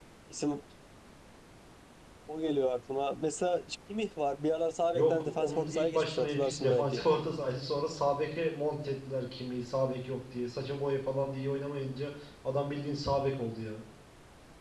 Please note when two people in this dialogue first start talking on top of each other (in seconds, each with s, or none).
4.9 s